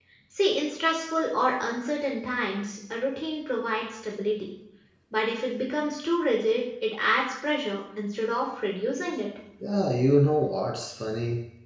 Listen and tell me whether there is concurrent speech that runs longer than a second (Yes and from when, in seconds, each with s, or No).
No